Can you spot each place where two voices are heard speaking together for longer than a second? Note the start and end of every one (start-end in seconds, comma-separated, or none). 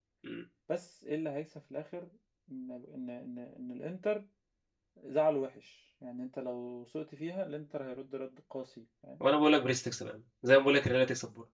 none